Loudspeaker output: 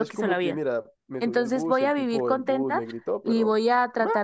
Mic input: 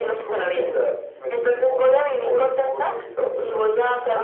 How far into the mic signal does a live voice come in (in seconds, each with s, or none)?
none